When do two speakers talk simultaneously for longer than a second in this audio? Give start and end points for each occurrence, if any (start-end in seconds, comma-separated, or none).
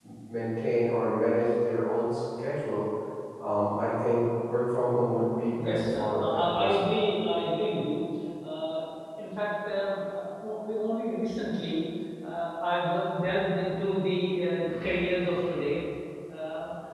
5.6-6.9